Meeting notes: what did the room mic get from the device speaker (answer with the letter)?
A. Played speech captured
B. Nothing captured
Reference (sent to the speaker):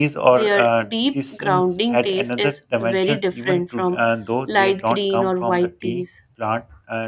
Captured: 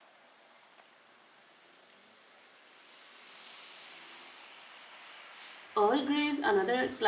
B